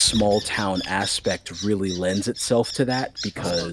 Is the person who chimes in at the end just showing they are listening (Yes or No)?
Yes